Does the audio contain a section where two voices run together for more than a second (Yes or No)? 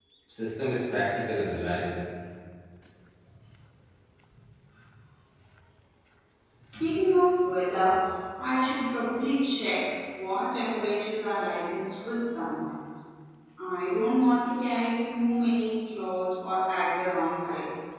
No